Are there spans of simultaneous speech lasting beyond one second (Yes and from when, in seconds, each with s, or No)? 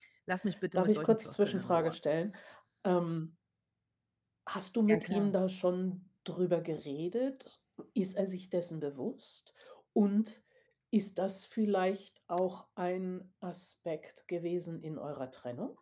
Yes, from 0.8 s